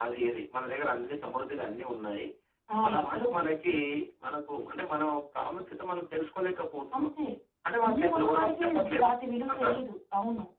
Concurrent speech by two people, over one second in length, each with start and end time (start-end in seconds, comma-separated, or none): 7.8-9.1